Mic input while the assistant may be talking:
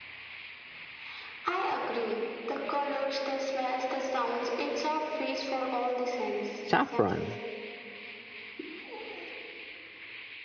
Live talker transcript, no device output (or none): saffron.